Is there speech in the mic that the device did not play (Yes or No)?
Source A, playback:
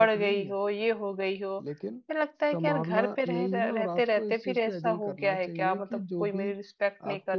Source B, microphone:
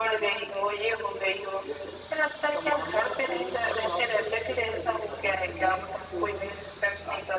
No